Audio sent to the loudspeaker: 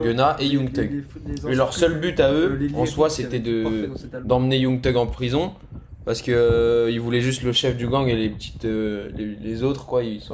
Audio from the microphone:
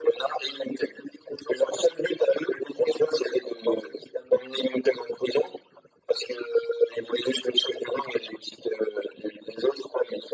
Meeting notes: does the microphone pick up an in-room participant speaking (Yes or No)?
No